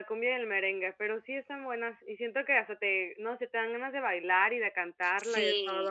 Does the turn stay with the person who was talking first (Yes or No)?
No